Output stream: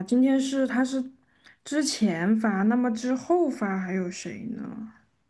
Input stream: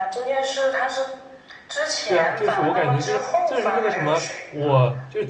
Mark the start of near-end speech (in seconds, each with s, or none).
2.1 s